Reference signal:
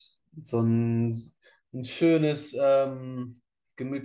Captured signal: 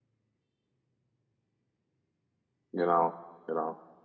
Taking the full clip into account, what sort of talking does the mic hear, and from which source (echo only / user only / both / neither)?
user only